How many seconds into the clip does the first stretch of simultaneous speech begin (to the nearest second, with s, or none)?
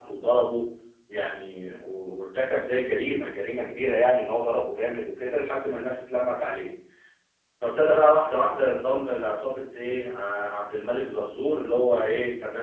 none